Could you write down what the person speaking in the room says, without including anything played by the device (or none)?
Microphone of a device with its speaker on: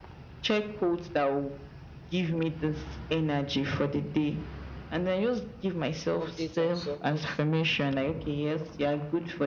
update and stuff. But